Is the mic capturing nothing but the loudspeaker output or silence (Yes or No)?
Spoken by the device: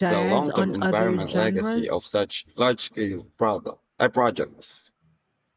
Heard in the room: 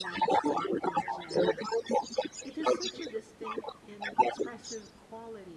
No